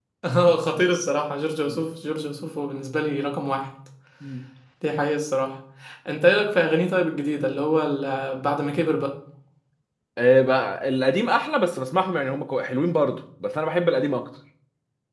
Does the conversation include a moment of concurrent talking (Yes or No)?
No